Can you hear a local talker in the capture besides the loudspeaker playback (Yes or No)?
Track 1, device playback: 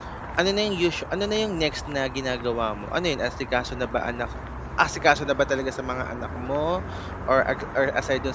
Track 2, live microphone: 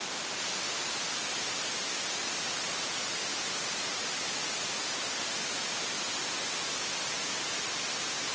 No